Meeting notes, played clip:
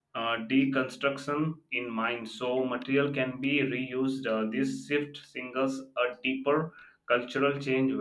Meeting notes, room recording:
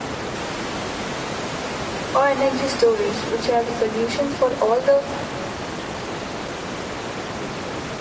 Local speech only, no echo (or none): or energy storage, which has a solutions for all the